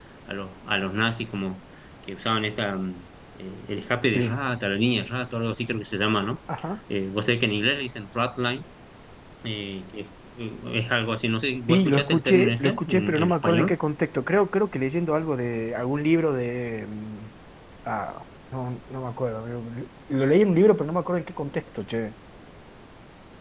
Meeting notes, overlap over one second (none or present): present